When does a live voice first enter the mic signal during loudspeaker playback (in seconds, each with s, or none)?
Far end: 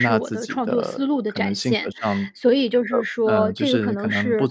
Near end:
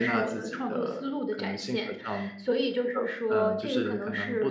none